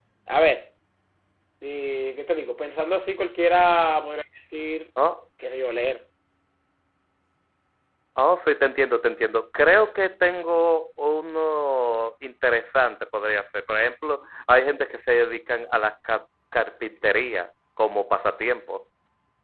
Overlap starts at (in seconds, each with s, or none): none